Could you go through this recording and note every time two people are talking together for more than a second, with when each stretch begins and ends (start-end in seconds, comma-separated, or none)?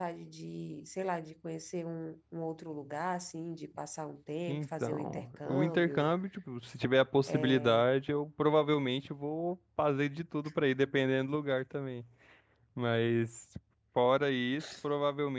4.5-6.1